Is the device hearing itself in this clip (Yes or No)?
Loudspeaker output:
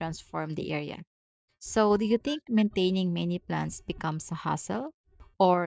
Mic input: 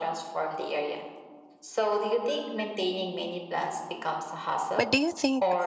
Yes